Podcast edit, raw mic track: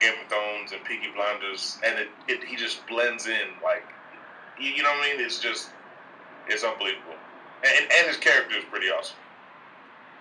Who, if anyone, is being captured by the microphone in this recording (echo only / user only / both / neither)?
echo only